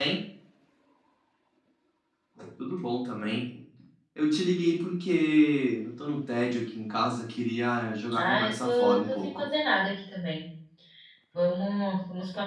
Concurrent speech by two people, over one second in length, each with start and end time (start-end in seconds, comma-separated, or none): 8.2-9.4